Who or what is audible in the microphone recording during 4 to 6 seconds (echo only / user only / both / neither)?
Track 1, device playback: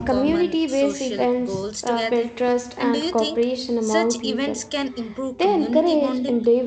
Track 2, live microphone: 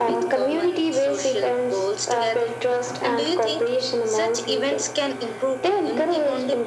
echo only